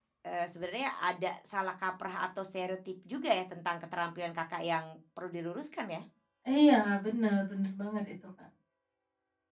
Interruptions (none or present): none